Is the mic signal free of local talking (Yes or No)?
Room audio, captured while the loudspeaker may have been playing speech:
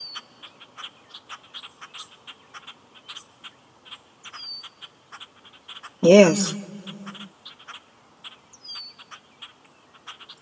No